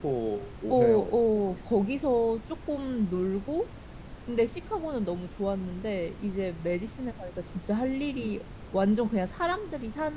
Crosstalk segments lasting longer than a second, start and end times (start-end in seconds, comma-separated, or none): 0.7-2.0